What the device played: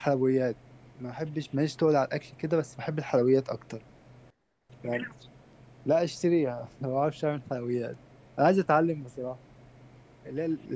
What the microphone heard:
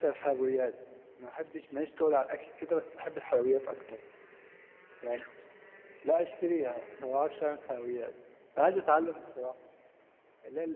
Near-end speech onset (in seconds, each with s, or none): none